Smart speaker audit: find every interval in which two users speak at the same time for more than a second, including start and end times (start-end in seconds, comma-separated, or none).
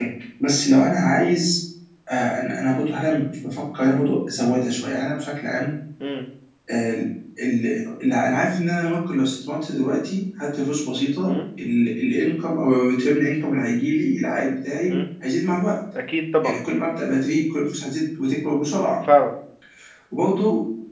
none